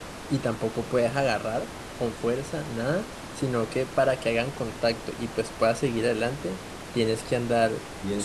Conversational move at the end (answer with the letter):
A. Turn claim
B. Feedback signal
B